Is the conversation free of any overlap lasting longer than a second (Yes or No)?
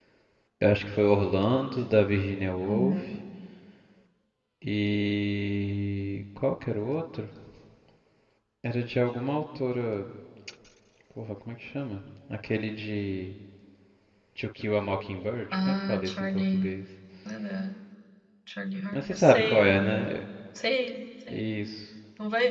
No